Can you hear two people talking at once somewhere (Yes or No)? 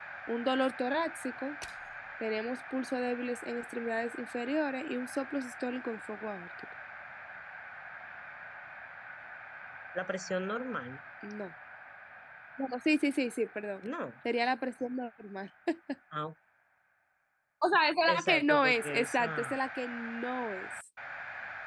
Yes